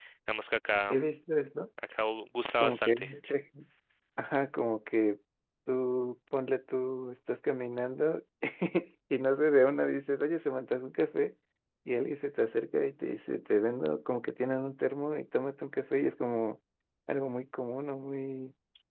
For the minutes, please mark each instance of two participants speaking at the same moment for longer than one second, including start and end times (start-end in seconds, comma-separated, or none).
none